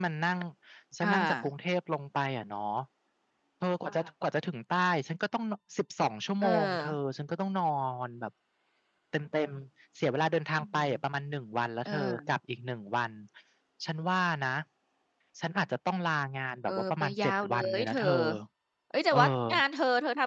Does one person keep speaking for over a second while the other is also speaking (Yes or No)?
Yes